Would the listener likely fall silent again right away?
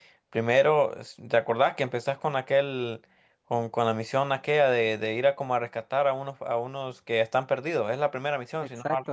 No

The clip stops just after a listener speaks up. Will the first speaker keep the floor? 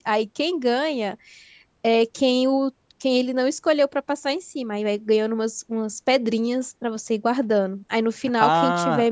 No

